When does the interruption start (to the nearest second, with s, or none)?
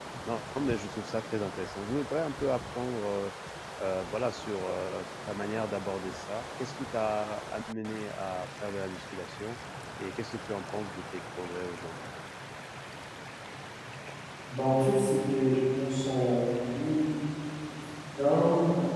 none